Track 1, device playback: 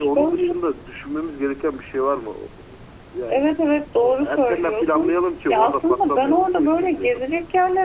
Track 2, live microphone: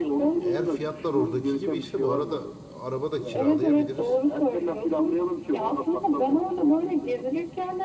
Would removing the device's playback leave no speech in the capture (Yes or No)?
No